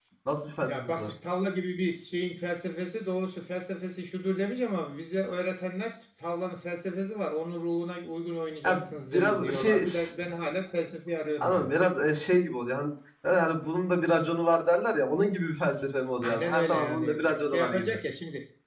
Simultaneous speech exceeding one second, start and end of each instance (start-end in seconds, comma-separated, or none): 8.6-9.8, 16.2-17.9